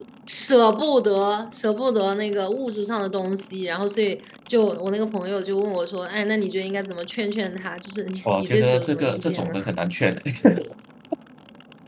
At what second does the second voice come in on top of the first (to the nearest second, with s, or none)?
8 s